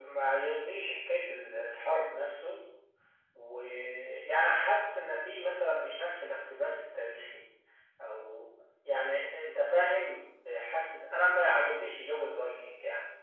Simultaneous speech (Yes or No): No